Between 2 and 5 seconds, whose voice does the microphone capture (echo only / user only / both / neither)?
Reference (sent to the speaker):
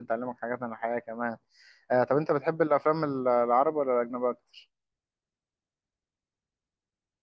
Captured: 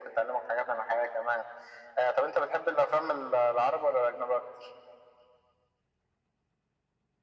echo only